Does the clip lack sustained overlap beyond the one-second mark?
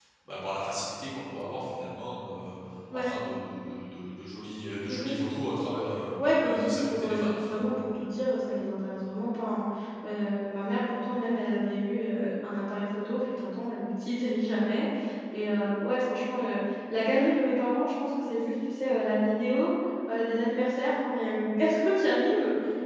No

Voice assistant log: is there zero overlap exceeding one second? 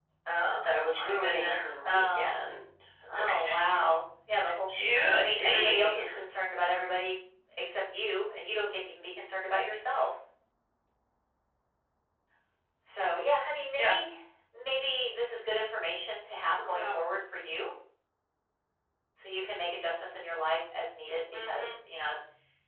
No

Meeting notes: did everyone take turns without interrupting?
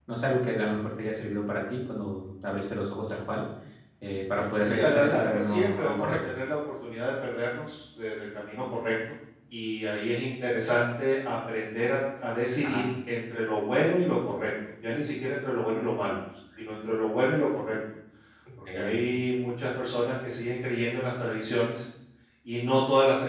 No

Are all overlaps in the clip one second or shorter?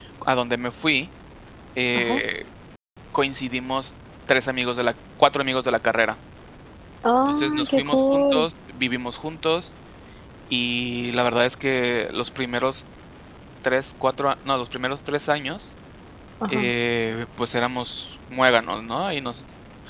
No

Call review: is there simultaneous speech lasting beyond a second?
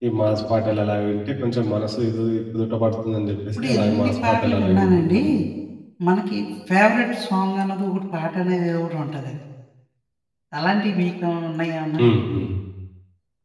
Yes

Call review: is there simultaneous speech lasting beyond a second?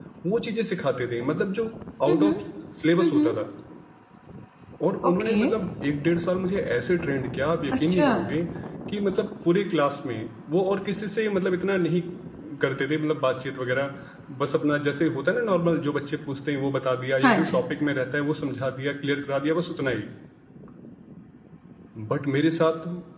No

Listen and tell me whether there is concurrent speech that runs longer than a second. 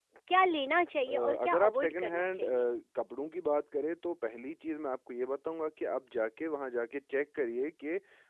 Yes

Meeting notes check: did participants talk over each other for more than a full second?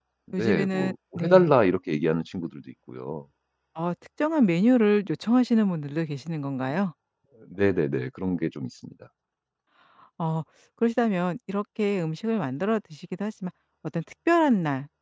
Yes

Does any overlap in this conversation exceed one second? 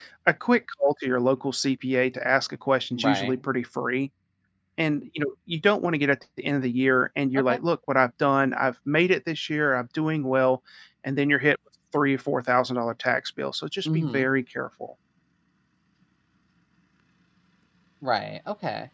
No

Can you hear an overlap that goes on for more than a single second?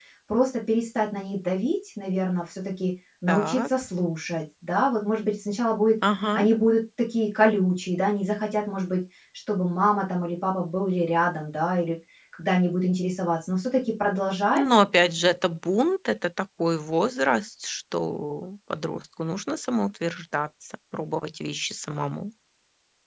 No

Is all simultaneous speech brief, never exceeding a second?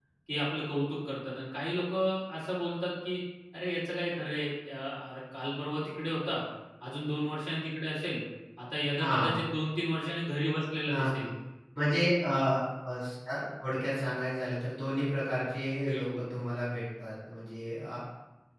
Yes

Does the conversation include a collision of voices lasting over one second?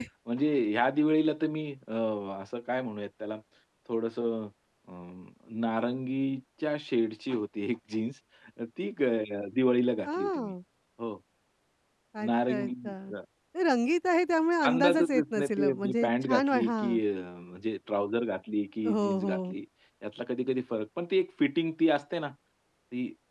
Yes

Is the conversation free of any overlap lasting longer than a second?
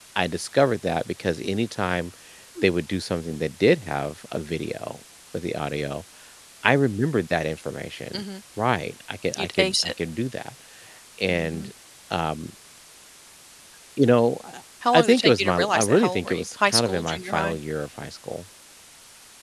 No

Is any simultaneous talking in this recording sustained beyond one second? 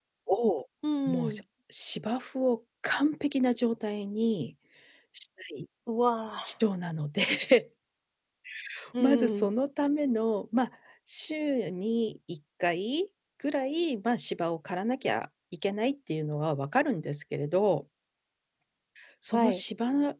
No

